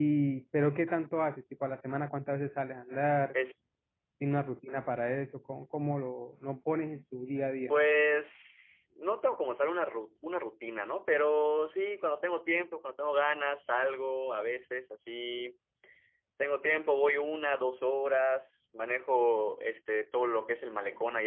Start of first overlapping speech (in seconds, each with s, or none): none